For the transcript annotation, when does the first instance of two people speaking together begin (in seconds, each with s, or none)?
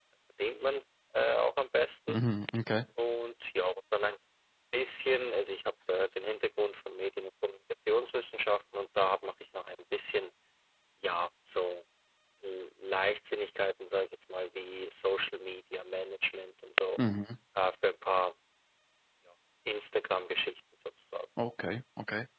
none